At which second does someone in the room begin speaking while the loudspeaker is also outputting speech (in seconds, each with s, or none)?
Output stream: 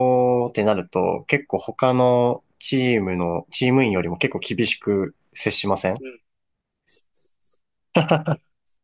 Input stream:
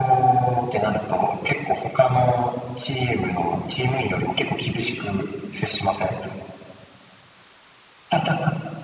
none